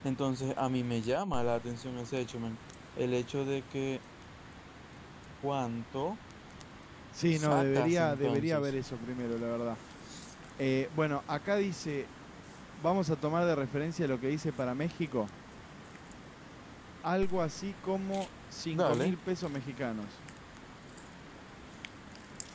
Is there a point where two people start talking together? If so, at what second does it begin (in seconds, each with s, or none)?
7.3 s